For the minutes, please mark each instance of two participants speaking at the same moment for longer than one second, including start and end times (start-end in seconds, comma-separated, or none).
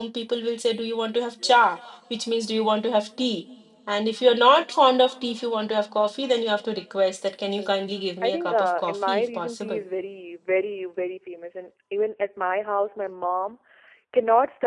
7.2-9.8